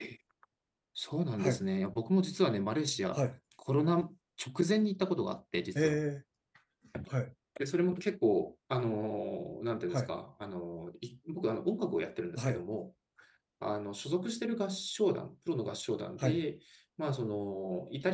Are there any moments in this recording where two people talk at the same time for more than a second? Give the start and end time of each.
none

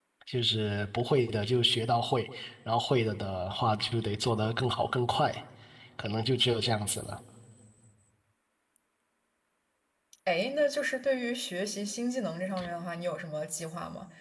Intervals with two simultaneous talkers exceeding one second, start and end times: none

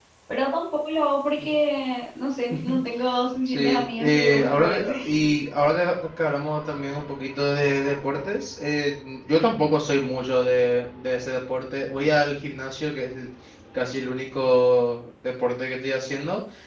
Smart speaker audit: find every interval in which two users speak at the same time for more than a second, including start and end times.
3.5-4.9

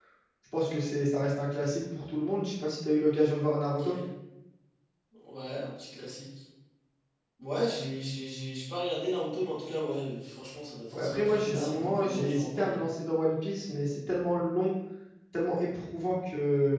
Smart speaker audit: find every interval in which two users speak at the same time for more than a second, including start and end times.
10.9-12.8

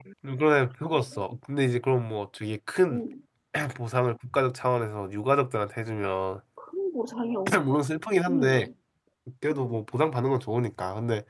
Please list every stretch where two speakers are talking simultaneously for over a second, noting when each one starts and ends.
none

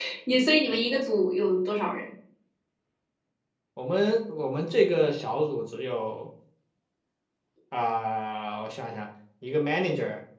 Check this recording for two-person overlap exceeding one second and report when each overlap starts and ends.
none

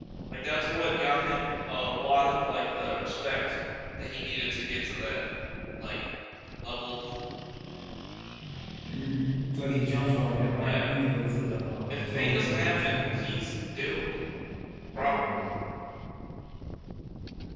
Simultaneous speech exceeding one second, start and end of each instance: 11.9-13.2

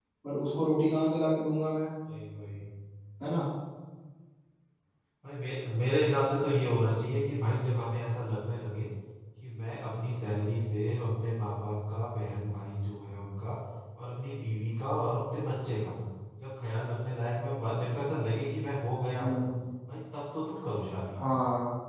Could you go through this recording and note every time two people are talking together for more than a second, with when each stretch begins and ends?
none

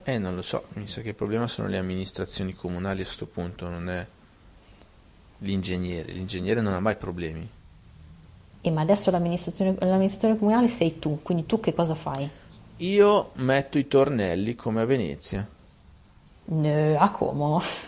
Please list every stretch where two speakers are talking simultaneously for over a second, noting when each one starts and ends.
none

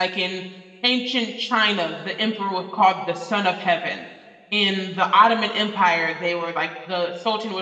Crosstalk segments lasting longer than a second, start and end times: none

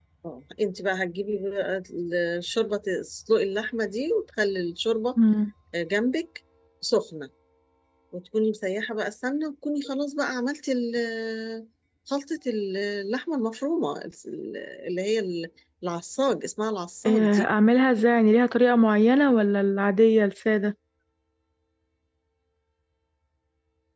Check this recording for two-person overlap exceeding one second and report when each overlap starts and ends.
none

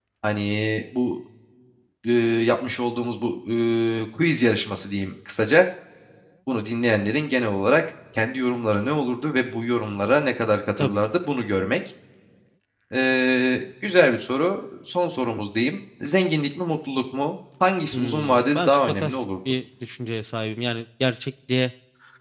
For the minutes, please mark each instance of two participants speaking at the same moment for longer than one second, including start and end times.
17.9-19.2

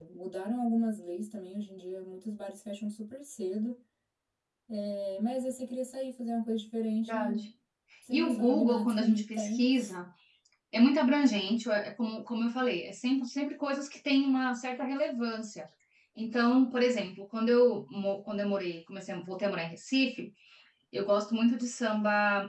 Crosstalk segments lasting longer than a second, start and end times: 8.1-9.7

